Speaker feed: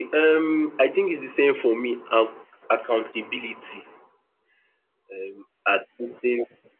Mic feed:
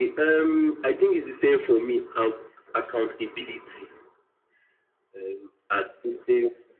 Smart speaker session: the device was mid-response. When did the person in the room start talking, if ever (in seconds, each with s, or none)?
none